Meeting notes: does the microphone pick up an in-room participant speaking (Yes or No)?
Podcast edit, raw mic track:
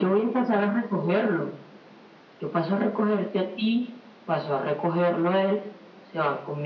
No